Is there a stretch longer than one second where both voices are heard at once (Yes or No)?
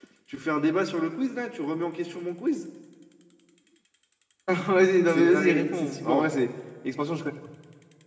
Yes